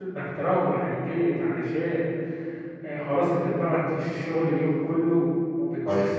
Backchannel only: Yes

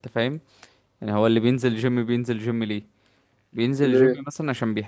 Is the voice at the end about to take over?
No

